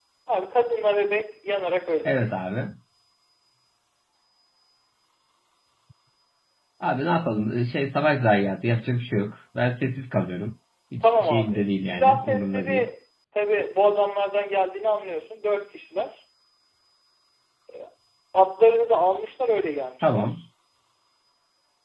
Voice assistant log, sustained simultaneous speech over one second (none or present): present